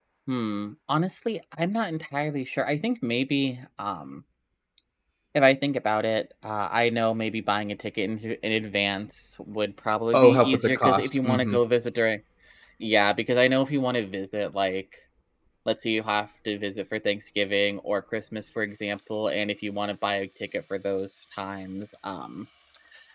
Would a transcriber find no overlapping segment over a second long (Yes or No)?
No